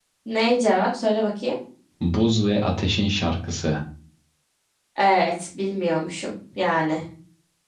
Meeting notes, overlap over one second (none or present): none